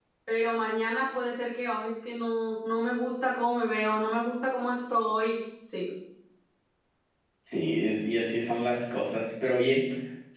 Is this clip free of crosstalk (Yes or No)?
Yes